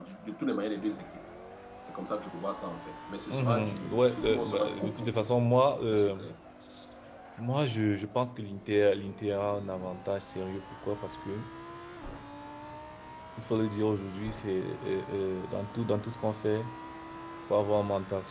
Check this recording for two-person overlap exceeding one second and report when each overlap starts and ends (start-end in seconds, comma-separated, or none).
3.3-5.3